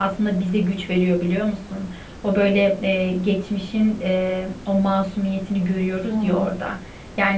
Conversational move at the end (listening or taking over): listening